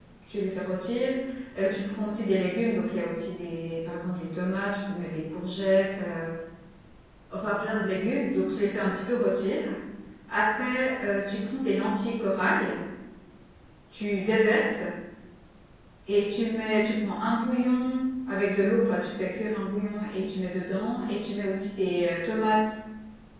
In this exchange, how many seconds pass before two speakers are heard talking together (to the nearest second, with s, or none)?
none